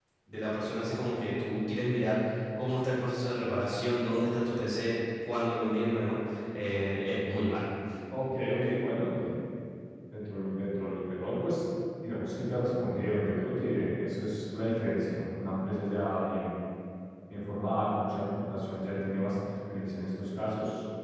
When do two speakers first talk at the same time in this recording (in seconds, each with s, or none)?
none